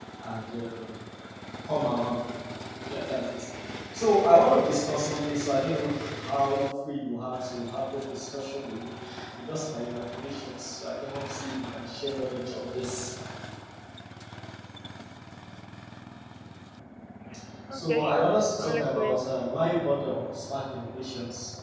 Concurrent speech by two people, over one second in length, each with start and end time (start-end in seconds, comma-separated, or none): 17.7-19.2